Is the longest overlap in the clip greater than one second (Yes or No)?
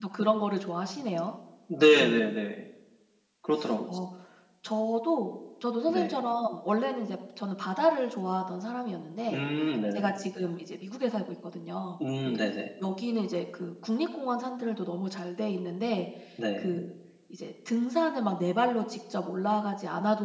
No